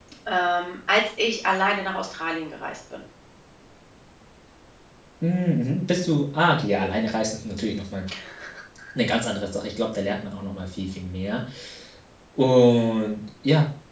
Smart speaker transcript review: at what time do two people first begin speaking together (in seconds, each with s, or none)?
none